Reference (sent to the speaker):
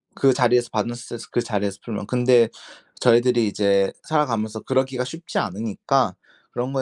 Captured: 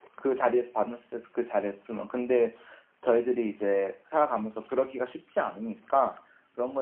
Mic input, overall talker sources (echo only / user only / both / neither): echo only